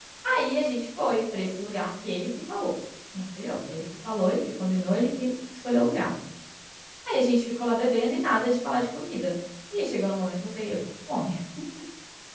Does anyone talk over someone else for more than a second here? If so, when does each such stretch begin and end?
none

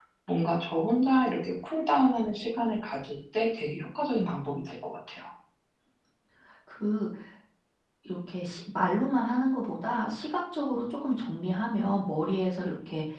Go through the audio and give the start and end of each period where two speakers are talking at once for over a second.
none

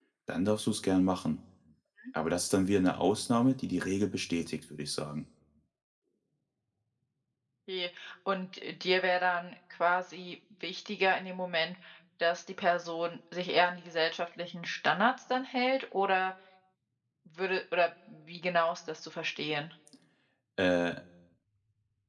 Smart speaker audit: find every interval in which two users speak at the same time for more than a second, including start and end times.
none

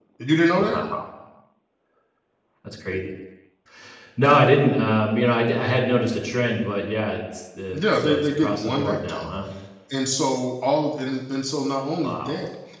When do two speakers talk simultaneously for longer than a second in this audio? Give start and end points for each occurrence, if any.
7.7-9.2

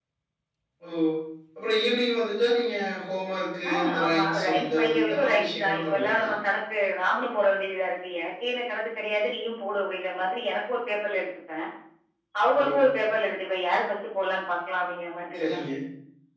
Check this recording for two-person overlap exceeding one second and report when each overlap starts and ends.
3.7-6.3

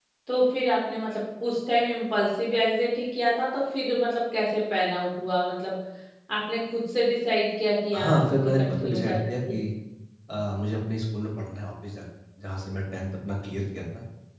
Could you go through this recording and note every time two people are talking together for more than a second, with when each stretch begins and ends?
7.9-9.3

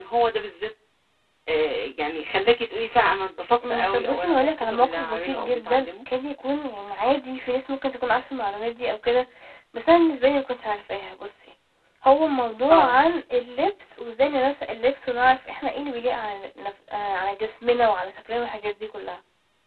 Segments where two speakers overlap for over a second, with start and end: 3.7-5.9

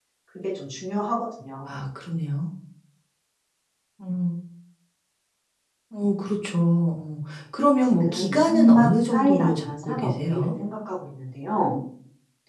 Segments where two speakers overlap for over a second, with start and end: 7.8-10.5

